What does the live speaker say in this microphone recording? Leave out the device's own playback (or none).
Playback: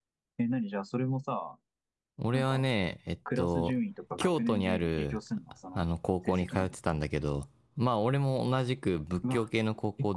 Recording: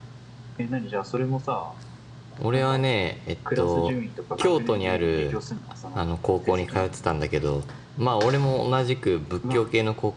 none